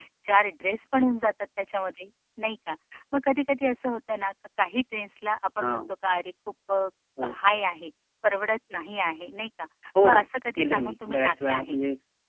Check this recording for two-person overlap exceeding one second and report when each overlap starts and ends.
10.6-11.8

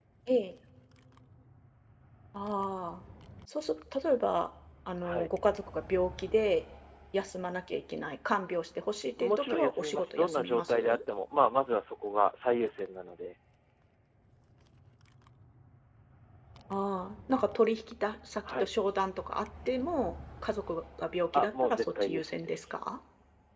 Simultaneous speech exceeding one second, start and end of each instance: 9.2-11.0, 21.3-22.6

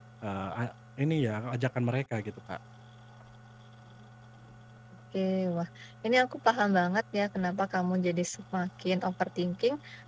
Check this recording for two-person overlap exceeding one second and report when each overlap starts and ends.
none

